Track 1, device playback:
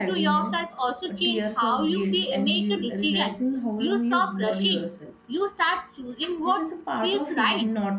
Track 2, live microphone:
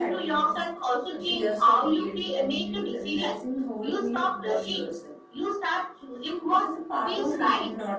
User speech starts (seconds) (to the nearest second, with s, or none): none